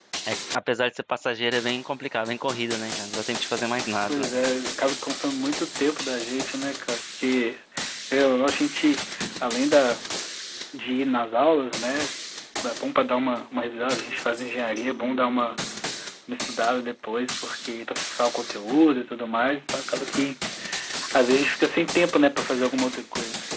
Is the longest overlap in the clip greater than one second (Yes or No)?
No